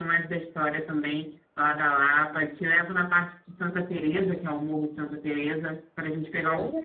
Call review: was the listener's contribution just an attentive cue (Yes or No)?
No